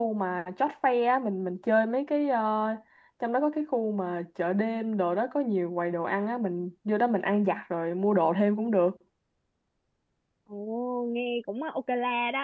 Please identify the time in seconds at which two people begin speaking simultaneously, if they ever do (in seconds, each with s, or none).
none